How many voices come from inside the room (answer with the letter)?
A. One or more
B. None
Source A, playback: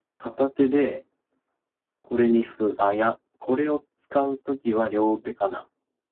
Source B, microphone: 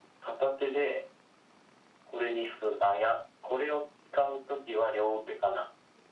B